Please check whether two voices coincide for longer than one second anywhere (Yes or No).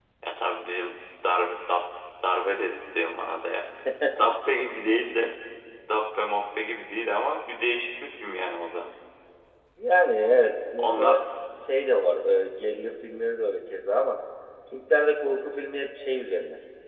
No